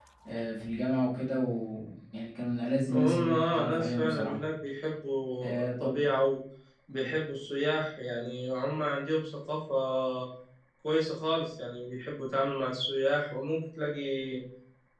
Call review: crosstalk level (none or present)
present